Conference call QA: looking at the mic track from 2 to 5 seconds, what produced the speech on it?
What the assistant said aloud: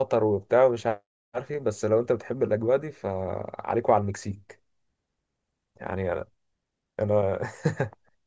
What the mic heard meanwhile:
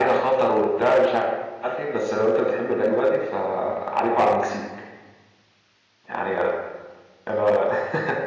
echo only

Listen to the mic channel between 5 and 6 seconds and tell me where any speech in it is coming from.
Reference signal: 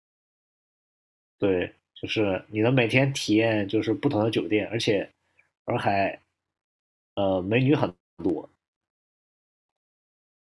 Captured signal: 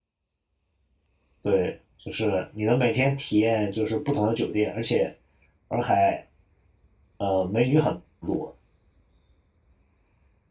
echo only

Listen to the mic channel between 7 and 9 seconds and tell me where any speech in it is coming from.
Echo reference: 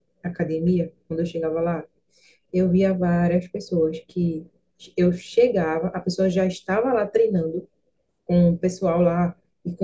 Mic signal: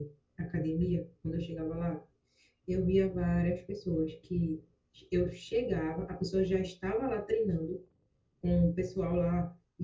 echo only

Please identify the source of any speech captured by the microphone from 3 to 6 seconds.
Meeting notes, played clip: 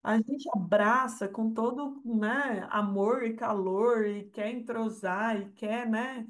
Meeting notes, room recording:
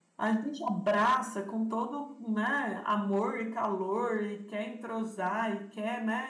echo only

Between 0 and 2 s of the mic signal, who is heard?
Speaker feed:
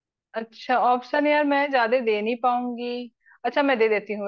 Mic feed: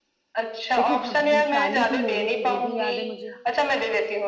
both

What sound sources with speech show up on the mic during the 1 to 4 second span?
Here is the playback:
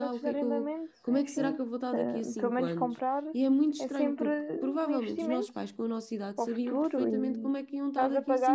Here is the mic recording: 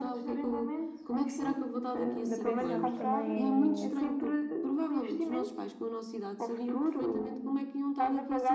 both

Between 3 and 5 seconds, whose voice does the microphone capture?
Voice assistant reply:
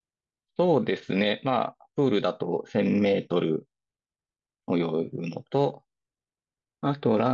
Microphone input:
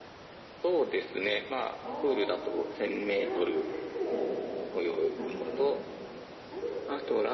both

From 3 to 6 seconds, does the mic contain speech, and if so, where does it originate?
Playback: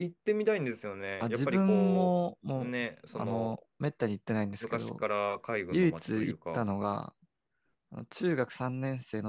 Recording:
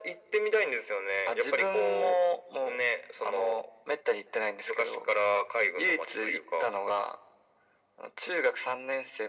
echo only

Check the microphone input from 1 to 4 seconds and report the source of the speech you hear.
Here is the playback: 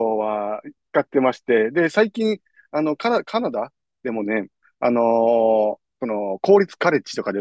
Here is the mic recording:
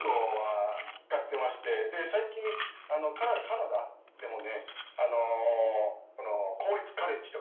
echo only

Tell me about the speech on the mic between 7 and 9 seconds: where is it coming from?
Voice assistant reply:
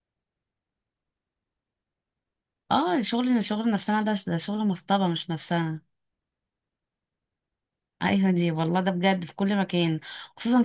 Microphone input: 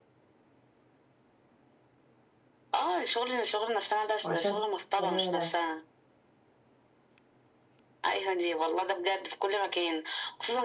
echo only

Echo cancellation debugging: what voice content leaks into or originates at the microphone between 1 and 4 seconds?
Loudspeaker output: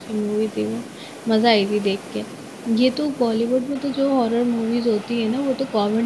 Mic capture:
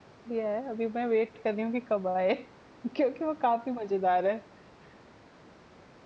user only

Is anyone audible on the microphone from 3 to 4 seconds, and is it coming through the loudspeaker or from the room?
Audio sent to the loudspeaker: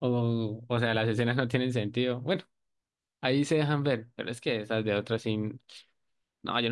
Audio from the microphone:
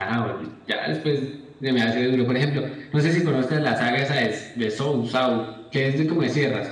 user only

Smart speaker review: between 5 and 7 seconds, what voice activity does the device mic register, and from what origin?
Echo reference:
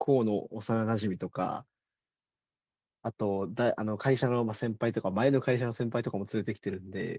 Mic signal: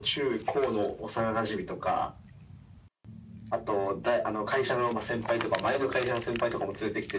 echo only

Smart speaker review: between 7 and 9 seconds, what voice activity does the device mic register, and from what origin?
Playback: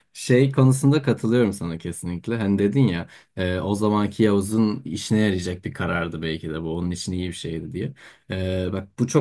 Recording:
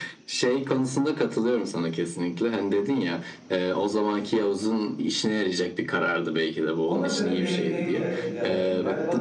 both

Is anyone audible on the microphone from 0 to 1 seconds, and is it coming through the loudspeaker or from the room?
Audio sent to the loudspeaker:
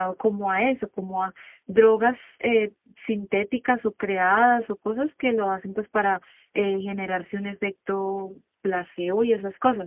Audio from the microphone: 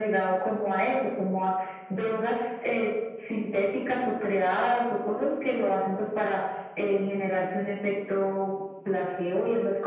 echo only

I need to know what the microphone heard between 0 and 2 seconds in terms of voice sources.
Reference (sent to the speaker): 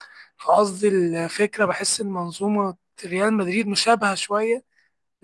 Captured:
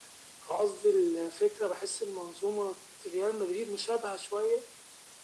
echo only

